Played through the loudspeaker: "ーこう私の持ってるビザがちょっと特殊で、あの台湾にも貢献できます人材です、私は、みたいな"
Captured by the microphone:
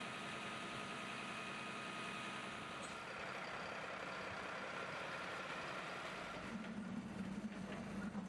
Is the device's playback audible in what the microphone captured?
No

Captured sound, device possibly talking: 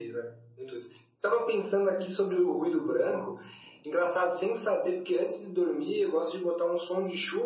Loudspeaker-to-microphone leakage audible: Yes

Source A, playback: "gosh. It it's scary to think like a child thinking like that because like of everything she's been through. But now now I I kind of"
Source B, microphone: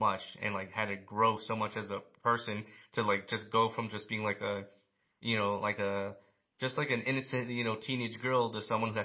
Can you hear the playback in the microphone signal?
No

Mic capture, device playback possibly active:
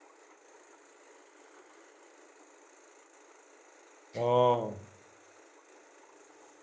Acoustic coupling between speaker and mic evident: No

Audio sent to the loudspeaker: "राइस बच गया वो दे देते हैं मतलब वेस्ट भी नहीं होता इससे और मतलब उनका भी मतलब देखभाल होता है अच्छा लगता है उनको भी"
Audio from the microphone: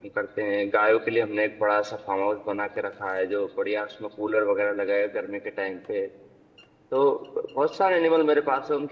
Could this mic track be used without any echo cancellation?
Yes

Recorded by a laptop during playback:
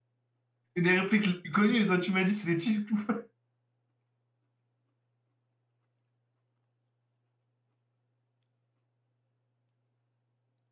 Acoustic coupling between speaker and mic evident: No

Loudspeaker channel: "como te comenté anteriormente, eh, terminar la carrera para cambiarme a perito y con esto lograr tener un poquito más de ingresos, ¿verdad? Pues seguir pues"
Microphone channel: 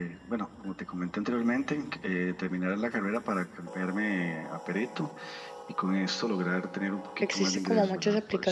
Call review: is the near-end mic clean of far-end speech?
No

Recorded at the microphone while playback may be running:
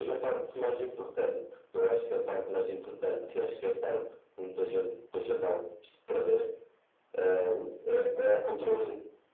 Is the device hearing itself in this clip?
Yes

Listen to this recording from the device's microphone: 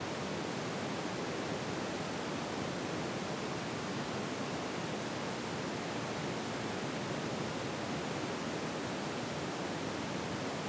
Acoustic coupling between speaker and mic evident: No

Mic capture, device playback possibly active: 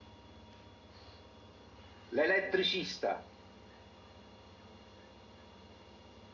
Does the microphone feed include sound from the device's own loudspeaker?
No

